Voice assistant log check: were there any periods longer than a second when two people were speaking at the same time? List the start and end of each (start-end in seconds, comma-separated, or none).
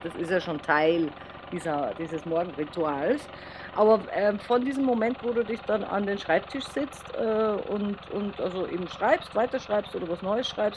none